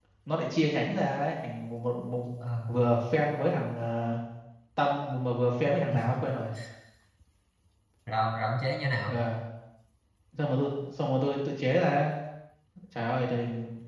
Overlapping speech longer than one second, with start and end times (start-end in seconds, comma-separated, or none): none